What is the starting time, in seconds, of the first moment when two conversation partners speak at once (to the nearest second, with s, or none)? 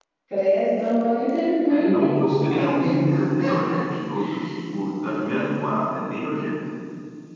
2 s